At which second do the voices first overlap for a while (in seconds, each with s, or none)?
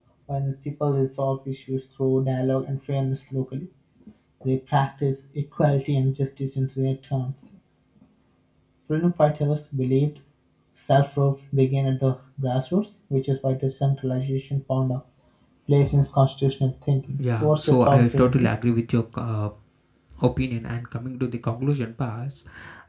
17.2 s